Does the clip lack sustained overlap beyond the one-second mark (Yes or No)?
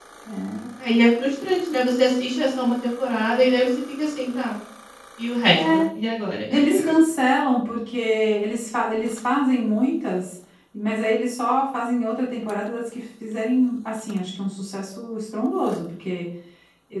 Yes